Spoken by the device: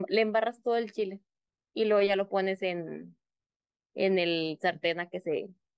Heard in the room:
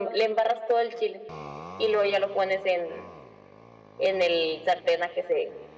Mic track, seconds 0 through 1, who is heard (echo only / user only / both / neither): echo only